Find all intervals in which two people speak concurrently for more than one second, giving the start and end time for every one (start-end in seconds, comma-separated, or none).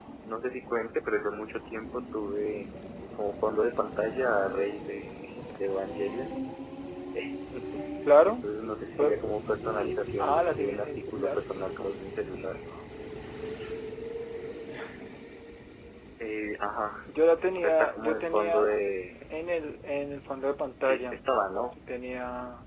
10.2-11.4, 17.6-18.8